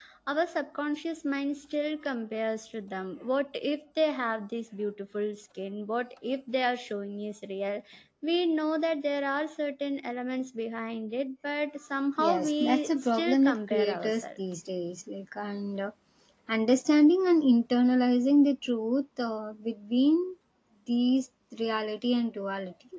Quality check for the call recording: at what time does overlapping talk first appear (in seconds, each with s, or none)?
12.2 s